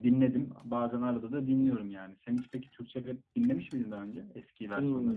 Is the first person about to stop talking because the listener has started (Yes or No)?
Yes